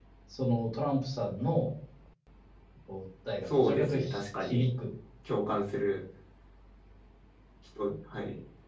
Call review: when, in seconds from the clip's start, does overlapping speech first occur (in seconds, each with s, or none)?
3.5 s